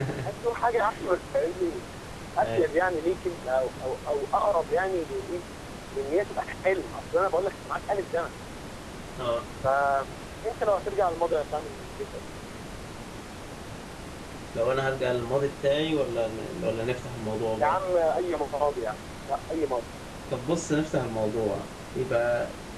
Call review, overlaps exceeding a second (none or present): none